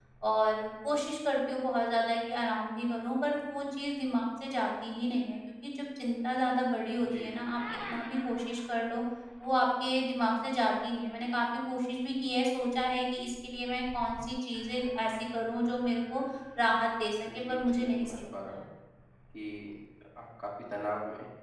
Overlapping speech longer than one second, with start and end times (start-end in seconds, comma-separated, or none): 17.3-18.6